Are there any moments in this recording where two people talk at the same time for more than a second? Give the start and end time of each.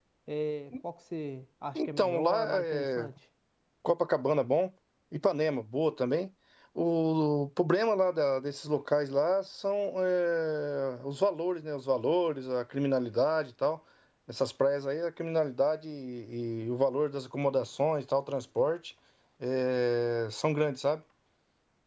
1.8-3.1

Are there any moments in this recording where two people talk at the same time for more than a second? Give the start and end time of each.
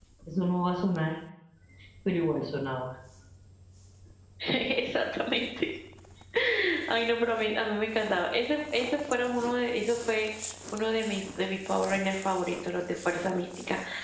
none

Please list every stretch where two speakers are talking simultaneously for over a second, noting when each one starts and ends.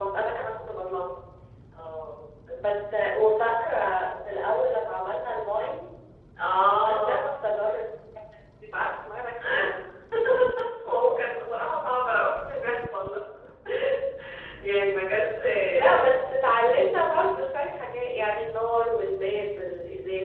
none

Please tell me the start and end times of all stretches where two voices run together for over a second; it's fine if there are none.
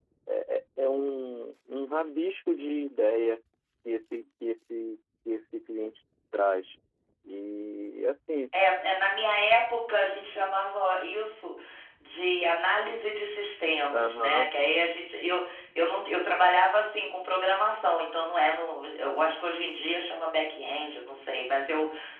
none

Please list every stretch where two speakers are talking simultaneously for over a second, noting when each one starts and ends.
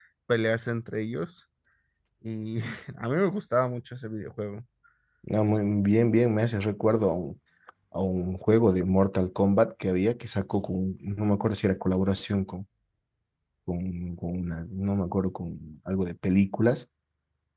none

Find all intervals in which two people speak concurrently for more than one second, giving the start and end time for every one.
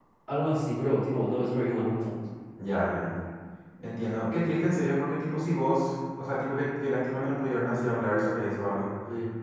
none

